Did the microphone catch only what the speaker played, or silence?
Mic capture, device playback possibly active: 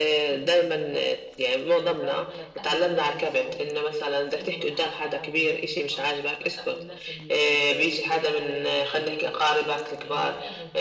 No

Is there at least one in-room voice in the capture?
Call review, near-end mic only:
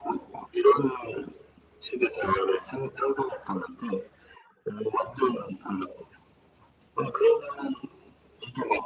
No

